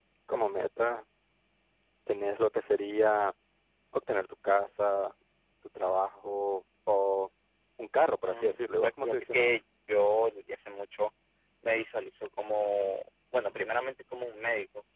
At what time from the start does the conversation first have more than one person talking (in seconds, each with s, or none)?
8.2 s